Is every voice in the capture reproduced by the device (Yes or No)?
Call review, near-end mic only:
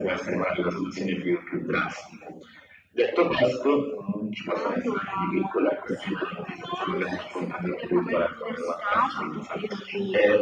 Yes